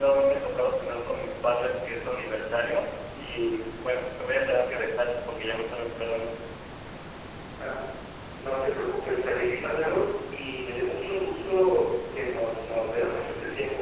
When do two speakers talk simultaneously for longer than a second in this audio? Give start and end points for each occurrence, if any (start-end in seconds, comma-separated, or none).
none